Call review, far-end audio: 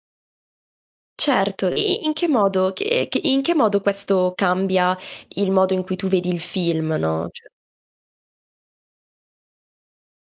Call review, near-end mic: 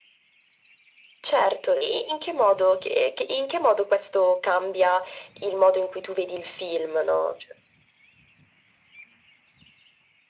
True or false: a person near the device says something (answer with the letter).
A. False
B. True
A